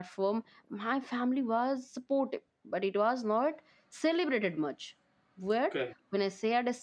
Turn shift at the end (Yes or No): No